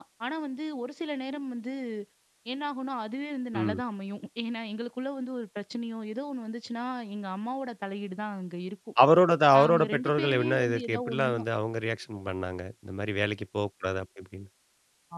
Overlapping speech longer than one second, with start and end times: 9.6-11.4

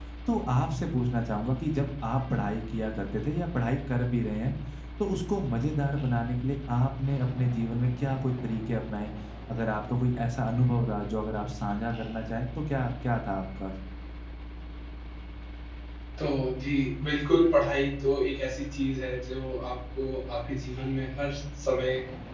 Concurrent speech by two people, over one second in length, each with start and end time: none

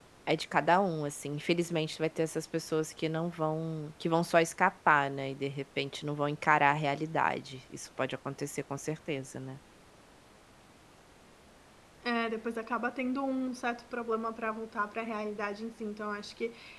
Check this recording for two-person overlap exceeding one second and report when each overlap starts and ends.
none

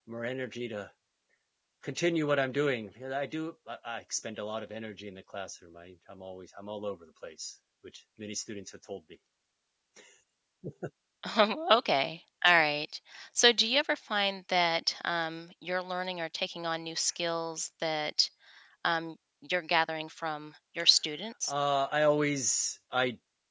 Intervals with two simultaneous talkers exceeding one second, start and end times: none

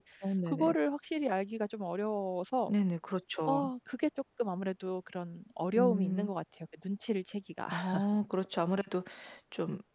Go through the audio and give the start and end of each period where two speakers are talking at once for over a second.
none

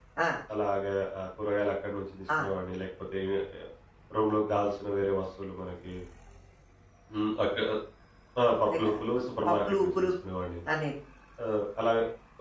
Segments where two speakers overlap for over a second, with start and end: 8.7-10.1

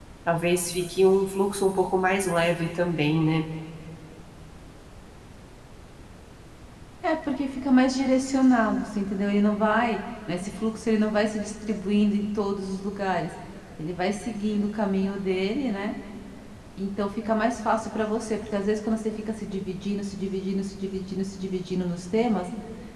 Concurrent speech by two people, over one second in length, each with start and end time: none

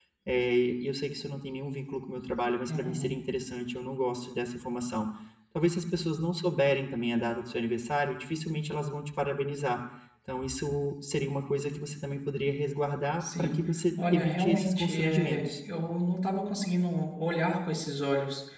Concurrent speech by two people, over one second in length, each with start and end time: 14.1-15.5

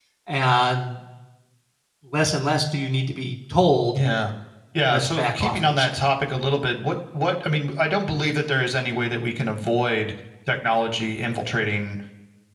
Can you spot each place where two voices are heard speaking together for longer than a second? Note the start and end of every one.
4.9-6.1

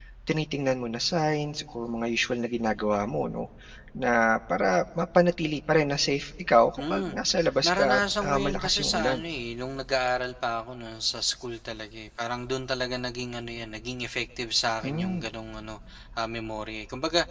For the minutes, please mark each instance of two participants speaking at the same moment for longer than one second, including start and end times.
7.6-9.2

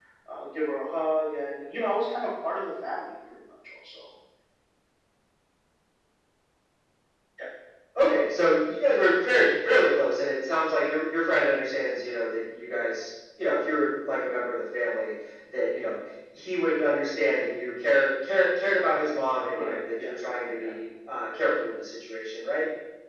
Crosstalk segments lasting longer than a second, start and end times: none

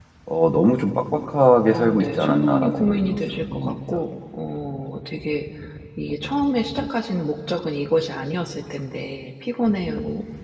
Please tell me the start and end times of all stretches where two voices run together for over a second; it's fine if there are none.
1.7-4.0

